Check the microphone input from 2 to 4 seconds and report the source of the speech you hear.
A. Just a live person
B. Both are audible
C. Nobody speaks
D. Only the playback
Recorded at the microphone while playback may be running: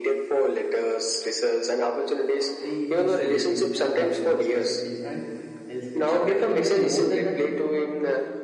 B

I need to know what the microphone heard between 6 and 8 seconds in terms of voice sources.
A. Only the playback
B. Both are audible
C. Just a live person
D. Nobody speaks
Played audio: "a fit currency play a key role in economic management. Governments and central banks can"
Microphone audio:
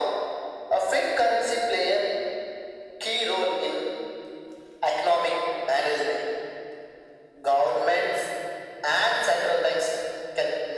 A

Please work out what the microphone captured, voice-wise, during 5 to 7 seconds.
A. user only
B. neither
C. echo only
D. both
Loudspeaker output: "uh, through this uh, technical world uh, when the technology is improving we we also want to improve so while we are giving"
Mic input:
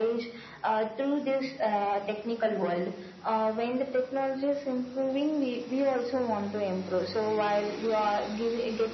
C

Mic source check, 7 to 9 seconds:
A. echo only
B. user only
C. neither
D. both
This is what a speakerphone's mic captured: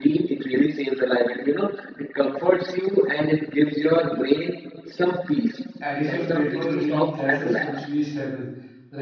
D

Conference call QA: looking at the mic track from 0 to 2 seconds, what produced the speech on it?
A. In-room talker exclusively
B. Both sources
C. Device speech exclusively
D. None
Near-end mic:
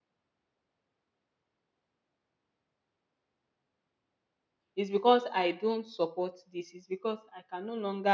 D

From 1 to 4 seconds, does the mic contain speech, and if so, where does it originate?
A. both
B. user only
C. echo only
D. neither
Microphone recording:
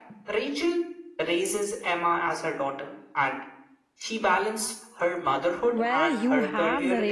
C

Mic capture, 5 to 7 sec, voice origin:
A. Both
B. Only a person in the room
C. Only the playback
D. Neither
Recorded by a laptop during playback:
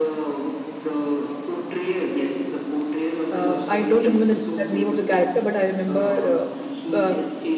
A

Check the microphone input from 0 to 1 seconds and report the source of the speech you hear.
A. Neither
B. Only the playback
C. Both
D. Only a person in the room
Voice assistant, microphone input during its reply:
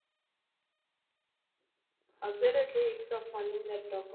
A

